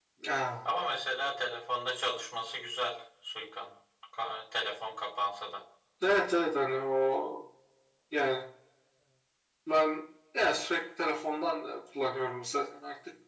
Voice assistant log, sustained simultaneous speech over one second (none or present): none